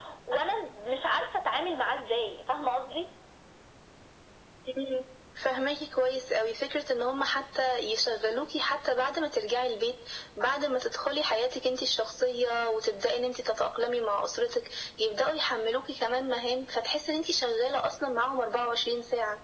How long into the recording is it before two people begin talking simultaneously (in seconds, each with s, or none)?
none